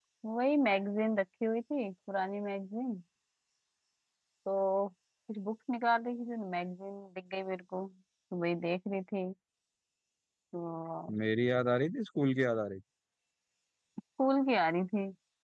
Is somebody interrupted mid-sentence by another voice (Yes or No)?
No